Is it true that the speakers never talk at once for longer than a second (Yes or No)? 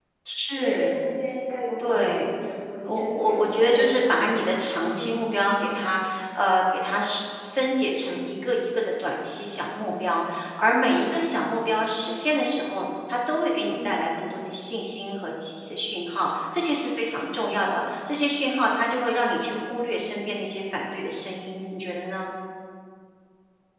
No